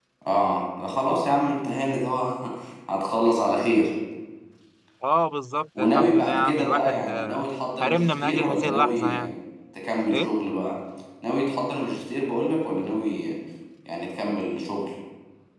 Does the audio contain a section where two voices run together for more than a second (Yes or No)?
Yes